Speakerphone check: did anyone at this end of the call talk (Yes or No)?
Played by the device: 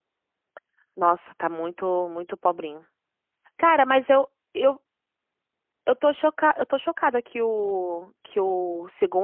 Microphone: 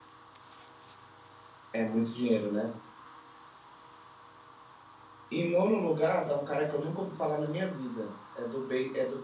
Yes